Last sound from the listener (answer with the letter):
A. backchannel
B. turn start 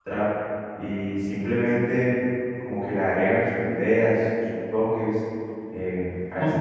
B